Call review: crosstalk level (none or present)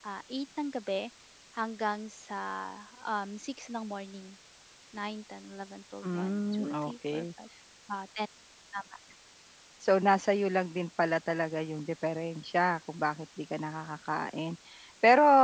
present